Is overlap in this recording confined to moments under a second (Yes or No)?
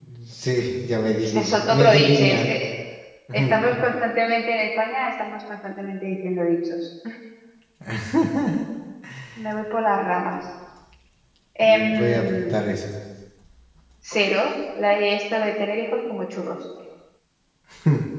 No